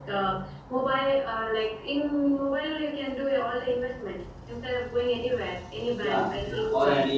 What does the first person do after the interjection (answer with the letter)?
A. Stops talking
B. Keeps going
A